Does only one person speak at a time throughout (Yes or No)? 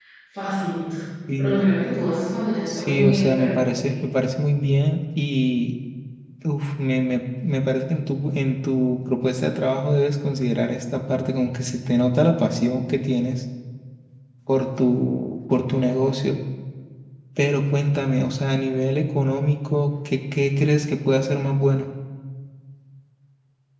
No